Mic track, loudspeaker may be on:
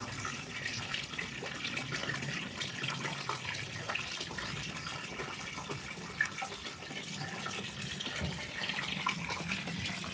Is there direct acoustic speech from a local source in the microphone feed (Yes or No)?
No